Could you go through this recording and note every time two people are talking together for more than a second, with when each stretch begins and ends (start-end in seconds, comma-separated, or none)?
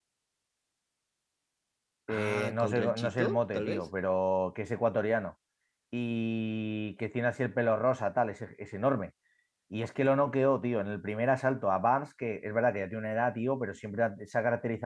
2.1-3.9